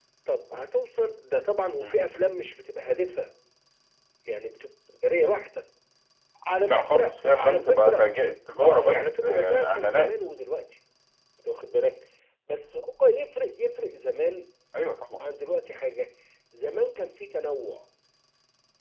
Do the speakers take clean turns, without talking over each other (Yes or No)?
No